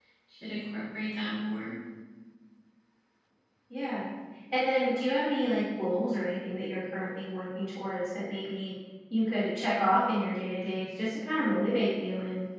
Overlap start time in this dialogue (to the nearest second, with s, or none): none